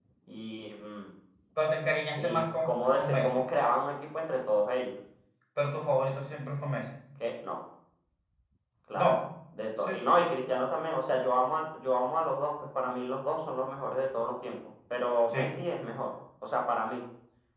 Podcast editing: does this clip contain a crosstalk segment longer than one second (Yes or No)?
Yes